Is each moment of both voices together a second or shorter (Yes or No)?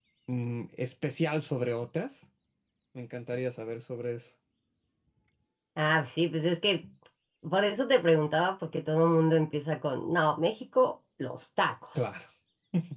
Yes